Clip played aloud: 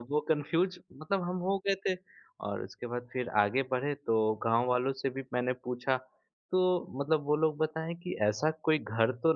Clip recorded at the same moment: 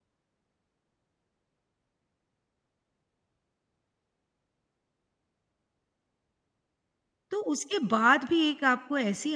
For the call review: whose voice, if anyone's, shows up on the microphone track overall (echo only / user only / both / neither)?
user only